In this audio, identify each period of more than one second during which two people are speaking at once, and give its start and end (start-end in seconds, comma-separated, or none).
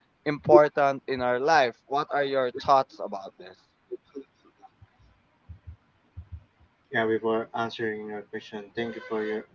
none